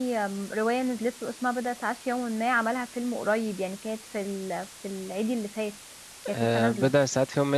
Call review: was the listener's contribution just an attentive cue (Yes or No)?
No